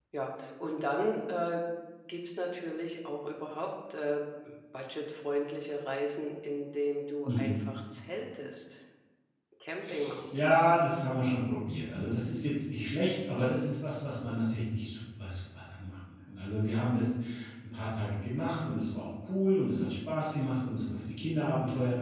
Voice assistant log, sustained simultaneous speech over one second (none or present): none